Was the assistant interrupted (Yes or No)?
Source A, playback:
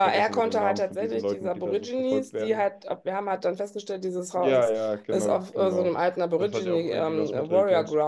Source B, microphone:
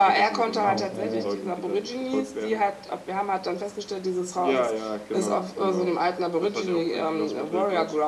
Yes